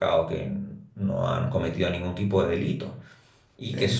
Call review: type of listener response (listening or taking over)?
listening